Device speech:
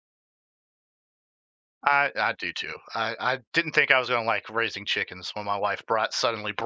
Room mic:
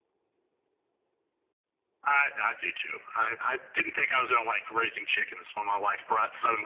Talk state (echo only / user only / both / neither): echo only